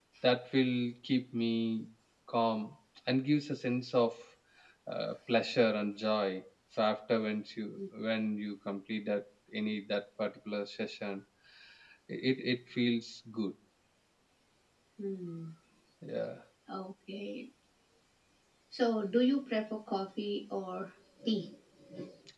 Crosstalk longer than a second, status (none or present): none